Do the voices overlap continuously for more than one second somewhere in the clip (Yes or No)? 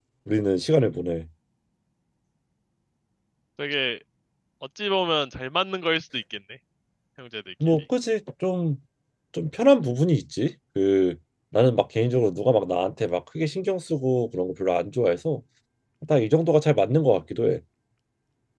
No